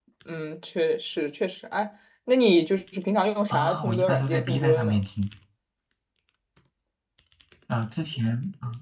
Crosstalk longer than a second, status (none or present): present